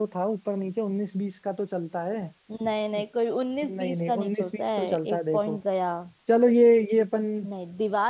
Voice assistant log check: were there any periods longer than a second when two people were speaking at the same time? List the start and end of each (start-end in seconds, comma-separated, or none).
3.7-5.6